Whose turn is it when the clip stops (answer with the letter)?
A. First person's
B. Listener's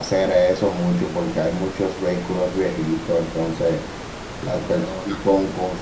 A